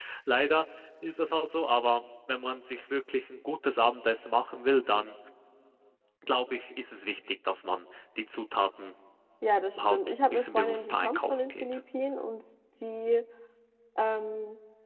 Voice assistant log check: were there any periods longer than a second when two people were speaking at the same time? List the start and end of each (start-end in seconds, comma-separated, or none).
9.8-11.6